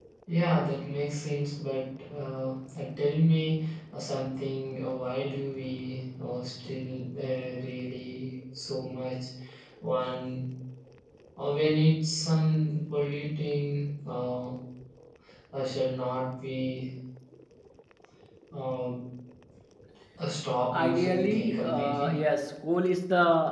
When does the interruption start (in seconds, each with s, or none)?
20.7 s